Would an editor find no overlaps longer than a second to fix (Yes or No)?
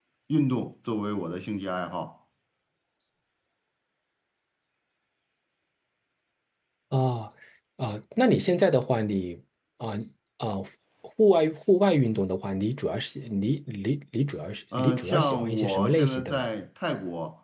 No